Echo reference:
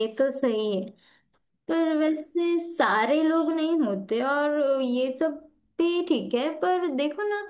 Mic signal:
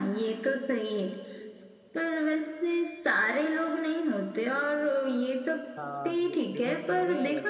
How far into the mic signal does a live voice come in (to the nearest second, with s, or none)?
6 s